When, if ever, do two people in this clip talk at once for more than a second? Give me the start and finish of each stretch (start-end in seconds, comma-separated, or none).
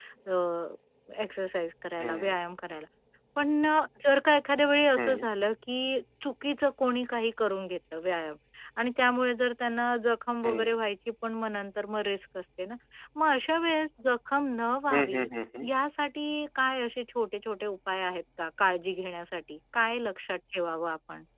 none